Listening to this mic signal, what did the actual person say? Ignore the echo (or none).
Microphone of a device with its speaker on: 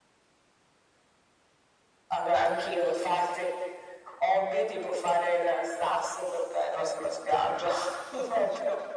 none